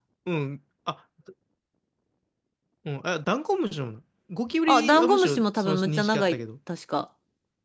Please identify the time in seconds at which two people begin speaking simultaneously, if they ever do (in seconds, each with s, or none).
4.7 s